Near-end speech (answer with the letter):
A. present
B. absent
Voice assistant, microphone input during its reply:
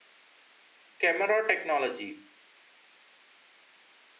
A